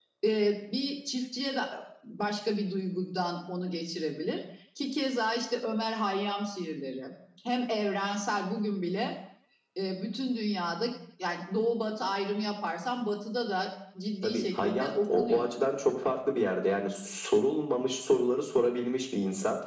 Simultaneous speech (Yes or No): Yes